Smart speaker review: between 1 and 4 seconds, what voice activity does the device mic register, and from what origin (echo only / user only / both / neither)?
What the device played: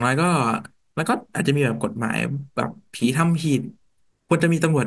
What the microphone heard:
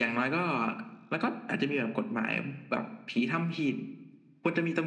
echo only